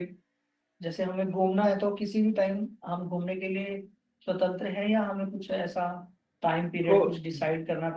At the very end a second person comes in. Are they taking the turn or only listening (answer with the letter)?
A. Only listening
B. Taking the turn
A